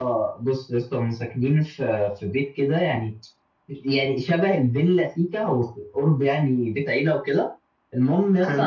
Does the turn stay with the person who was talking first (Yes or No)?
Yes